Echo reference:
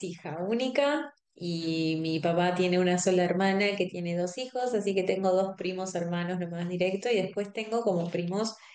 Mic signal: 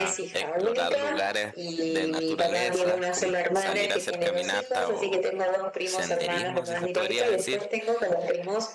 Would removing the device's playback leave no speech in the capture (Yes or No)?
No